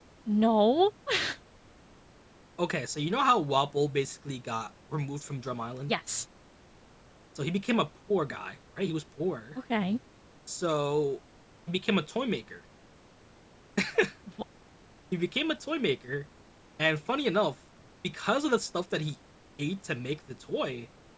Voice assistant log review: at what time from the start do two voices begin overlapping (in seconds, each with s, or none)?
none